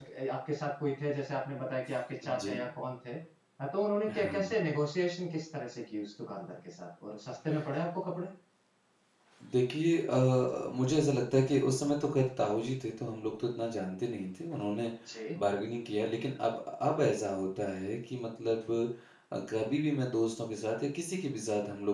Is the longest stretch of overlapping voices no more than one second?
Yes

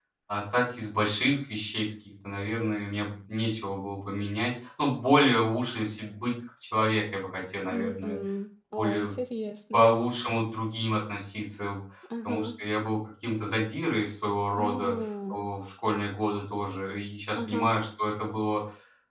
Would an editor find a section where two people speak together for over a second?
No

